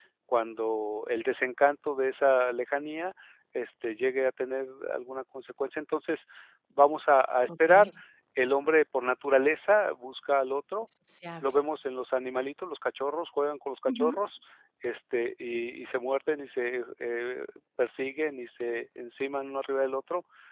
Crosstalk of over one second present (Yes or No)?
No